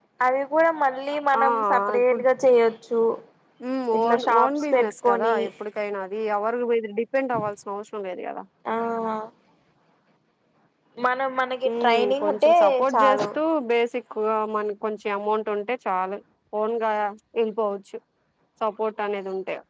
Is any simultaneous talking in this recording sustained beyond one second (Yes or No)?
Yes